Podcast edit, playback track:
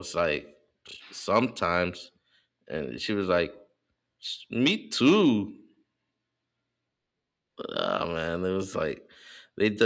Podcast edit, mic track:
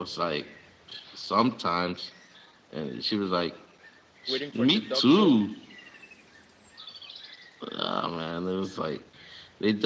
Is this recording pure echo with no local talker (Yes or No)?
No